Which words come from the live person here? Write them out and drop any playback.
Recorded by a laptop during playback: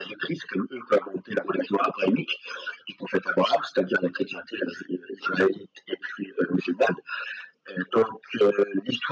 none

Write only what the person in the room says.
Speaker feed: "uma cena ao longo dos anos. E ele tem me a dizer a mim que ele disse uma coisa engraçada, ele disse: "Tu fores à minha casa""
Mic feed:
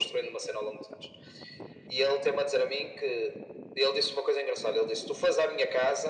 none

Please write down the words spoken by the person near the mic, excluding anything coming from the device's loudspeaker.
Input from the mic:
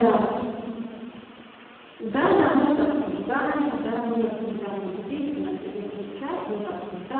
none

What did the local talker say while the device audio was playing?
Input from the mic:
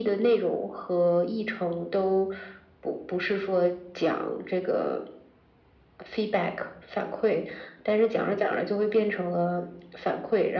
none

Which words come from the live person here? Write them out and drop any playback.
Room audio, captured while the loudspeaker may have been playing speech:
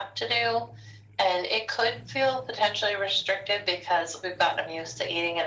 none

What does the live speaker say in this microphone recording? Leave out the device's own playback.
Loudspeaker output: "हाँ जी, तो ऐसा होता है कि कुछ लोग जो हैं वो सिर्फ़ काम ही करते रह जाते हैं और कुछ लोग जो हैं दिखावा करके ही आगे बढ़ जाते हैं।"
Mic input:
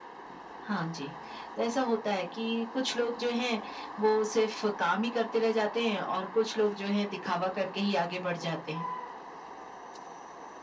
none

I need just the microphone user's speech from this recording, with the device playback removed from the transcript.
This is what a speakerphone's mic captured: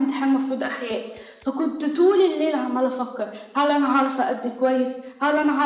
none

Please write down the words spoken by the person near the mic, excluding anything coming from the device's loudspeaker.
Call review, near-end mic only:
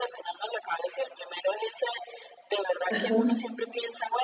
Ajá.

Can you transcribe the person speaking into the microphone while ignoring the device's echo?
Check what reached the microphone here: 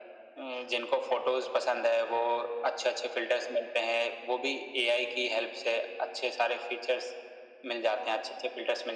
none

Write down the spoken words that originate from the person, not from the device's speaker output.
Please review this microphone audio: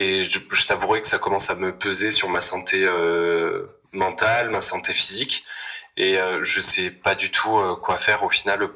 none

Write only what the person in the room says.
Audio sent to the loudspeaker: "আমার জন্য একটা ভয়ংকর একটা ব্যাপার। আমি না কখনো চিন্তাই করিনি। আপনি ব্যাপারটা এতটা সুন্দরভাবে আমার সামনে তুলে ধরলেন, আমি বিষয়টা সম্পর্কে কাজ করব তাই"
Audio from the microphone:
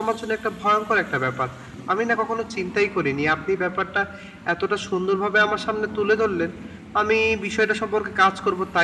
none

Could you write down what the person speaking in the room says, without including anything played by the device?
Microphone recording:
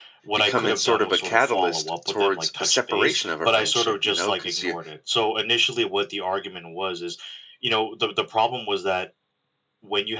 becoming sort of a catalyst towards a separation of a friendship, you know, cuz you

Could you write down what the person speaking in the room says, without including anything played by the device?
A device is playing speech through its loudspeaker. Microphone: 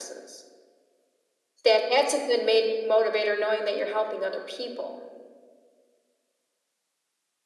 none

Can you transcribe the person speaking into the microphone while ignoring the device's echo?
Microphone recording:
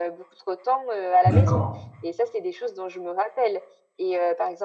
D'accord.

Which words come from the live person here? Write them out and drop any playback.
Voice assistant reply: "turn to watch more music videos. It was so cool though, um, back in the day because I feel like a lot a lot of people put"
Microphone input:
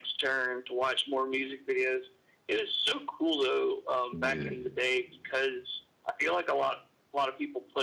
Yeah.

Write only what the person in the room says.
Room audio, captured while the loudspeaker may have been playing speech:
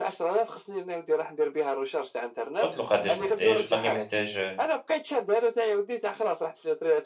قُلت له قداش محتاج؟ قال لي محتاج

